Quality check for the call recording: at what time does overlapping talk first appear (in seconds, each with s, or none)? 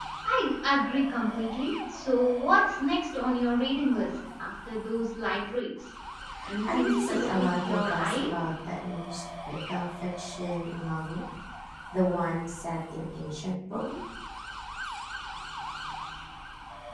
6.7 s